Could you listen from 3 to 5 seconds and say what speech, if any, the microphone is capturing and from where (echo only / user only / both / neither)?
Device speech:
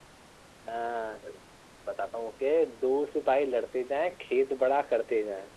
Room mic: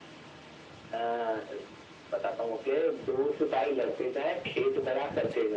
echo only